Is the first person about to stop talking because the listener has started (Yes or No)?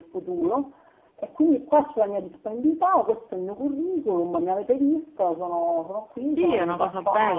Yes